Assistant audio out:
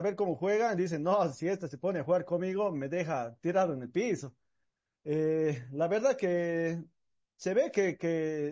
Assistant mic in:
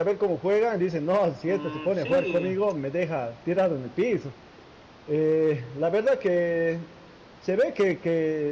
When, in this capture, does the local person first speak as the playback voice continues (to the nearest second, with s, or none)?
1 s